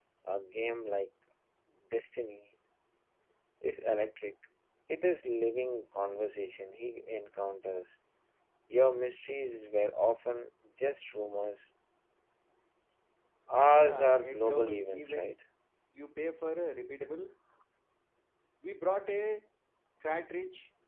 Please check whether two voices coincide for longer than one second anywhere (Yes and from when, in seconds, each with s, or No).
Yes, from 13.7 s